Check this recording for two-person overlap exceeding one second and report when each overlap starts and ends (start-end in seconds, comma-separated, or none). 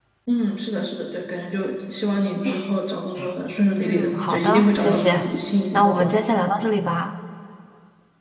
3.8-5.3